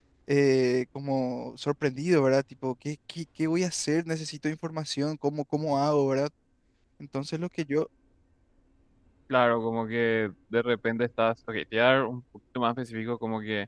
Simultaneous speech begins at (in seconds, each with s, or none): none